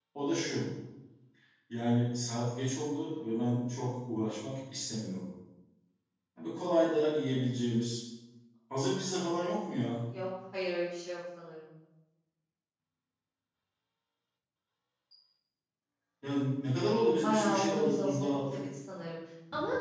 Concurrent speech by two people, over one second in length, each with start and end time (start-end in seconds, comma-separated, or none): 17.2-18.6